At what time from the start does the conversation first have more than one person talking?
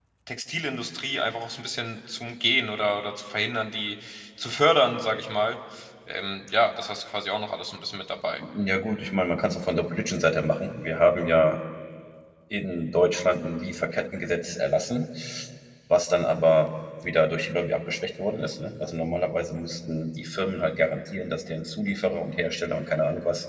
none

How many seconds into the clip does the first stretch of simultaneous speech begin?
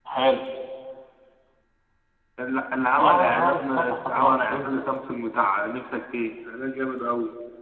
3.0 s

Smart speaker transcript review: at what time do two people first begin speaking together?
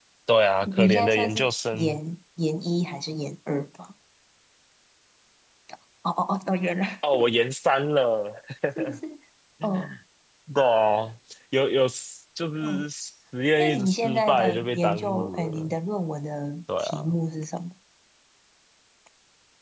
0.6 s

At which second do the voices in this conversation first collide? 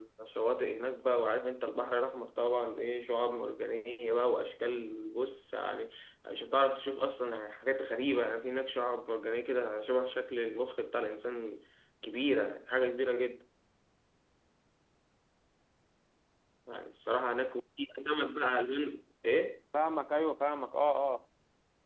none

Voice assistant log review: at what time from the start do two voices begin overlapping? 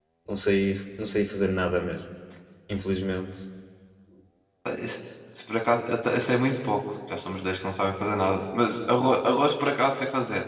none

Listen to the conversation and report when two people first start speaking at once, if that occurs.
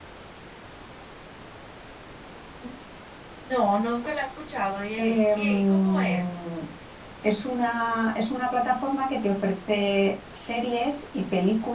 5.0 s

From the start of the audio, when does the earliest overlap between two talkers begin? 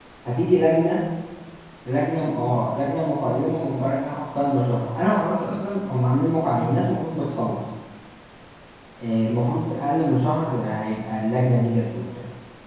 none

